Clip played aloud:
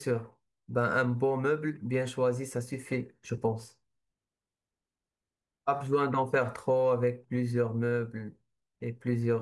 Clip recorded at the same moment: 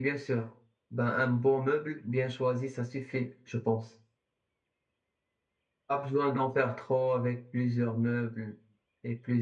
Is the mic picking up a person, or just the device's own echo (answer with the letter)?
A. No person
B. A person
A